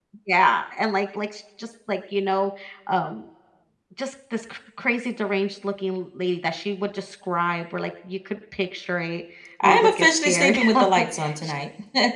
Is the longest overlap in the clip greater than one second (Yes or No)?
Yes